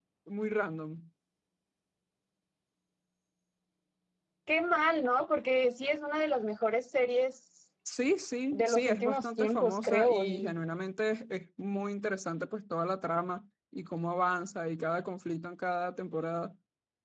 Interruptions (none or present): present